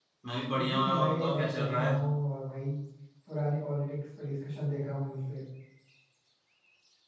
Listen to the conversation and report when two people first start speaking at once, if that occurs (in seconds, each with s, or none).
0.5 s